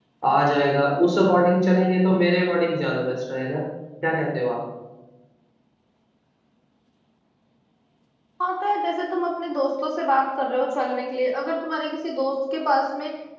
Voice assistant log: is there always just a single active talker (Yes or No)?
Yes